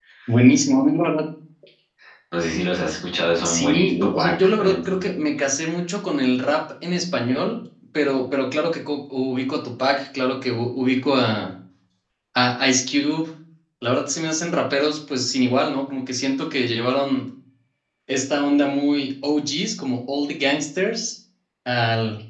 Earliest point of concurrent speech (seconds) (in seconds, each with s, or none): 3.4 s